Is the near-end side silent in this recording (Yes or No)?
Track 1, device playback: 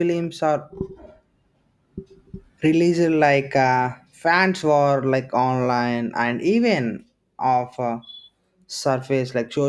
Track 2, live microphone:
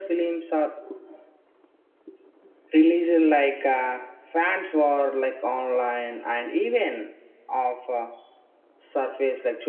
Yes